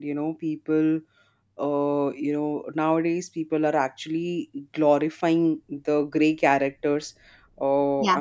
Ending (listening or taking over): listening